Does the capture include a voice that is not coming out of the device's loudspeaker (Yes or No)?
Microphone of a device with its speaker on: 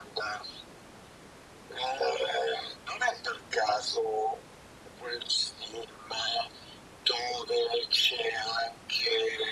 No